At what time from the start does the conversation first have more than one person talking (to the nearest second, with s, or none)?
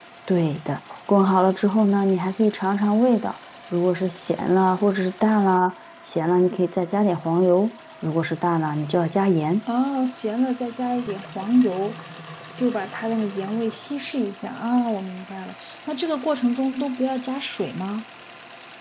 none